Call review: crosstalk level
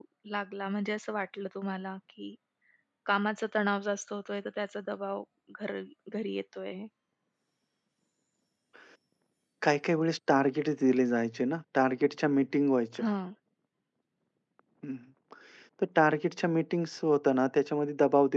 none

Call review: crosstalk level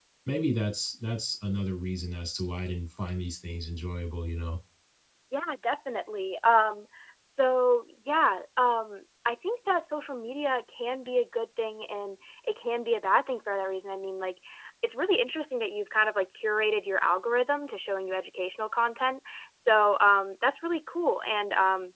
none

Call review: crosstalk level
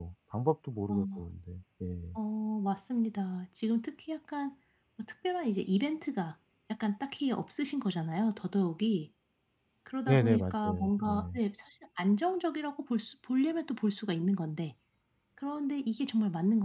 present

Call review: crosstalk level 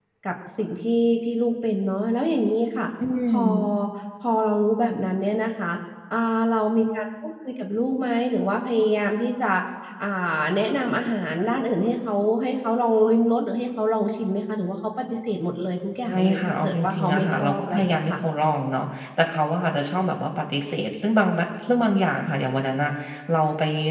present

